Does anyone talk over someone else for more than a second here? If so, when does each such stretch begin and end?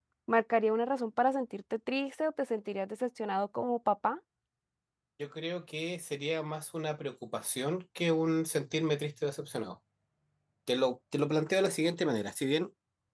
none

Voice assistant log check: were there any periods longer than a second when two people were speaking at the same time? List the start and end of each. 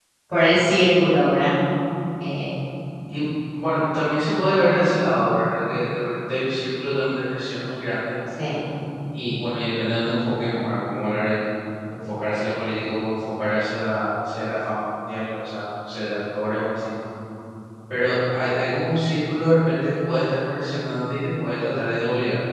none

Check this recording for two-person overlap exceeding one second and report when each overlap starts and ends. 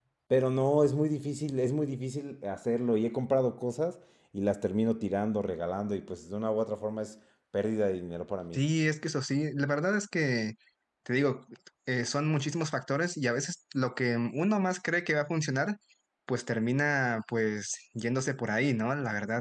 none

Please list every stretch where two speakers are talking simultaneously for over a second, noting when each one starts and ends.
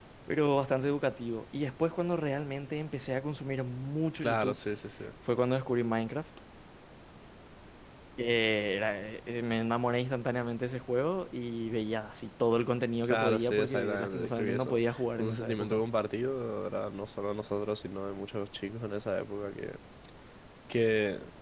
13.0-15.8

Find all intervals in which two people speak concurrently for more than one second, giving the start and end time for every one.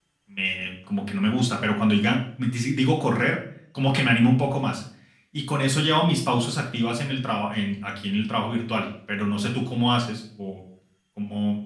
none

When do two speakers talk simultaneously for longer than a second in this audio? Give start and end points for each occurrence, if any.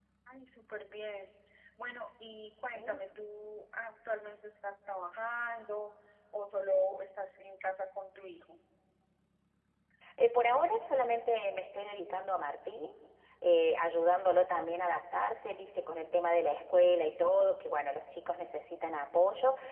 none

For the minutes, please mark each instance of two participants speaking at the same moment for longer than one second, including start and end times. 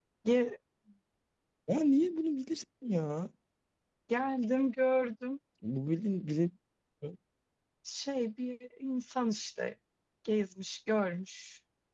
none

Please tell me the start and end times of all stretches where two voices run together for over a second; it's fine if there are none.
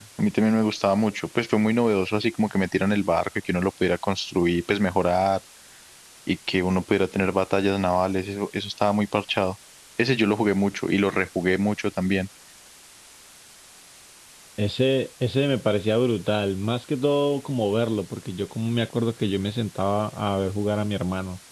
none

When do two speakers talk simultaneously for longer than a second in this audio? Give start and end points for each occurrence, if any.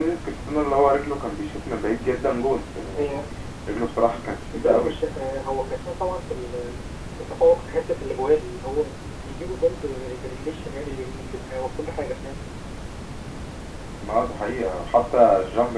none

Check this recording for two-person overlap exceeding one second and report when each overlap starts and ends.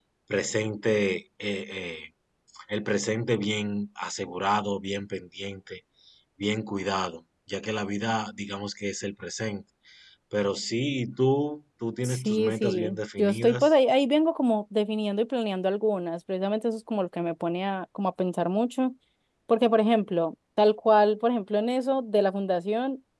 12.0-13.7

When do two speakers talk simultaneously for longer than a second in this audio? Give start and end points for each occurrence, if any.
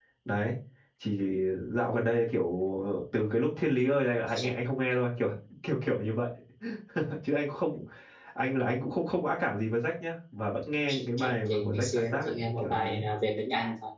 11.2-13.0

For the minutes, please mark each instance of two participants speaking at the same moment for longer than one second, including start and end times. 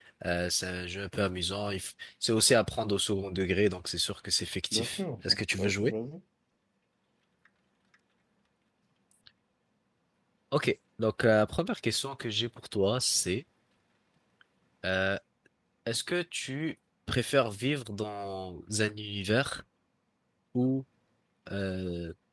4.7-5.9

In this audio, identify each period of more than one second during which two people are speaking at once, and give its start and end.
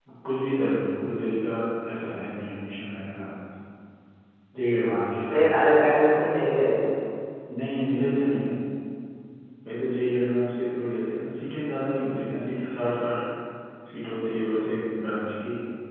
none

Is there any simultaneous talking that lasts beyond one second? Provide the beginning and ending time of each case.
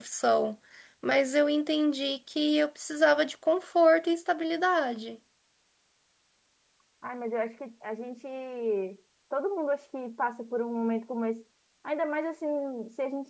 none

